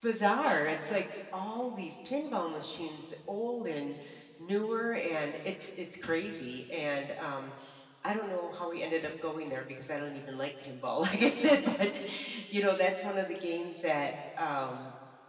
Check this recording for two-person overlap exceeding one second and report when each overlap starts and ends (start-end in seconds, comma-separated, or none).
none